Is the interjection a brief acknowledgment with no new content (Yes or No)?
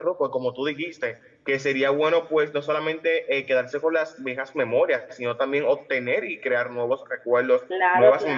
Yes